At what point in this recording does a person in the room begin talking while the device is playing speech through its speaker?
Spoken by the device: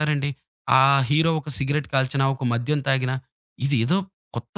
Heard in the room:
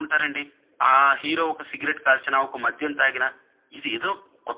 none

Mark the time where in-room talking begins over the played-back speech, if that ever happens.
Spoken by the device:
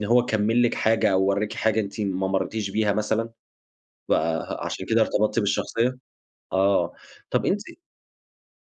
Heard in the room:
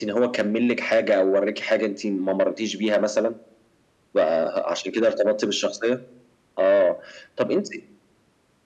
none

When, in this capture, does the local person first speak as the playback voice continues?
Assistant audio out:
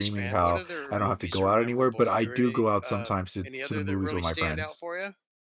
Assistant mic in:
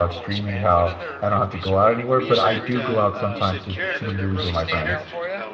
2.1 s

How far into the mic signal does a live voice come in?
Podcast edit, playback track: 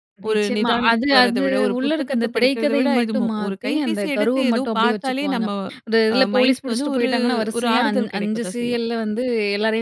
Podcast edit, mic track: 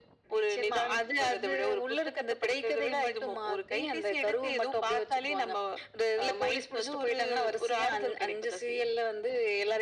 none

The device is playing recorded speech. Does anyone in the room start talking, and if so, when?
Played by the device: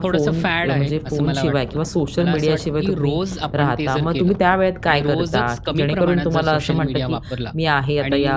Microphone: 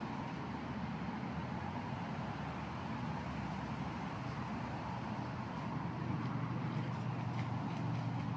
none

